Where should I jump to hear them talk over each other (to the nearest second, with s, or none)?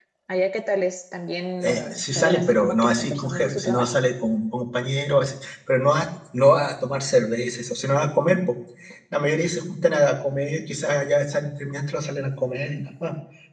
2 s